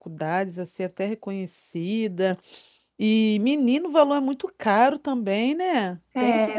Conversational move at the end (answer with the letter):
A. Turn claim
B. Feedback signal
A